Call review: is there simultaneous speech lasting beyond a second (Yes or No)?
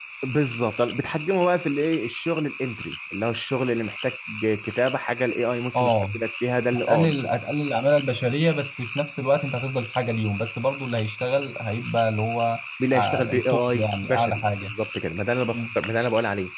Yes